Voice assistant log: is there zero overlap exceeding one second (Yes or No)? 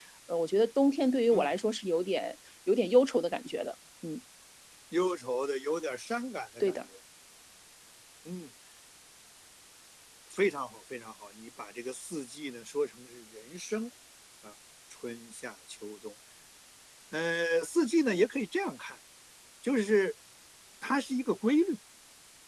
Yes